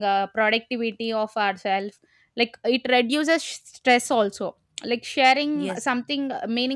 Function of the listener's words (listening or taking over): listening